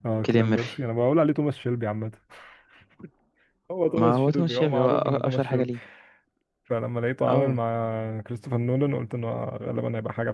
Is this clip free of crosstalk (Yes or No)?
No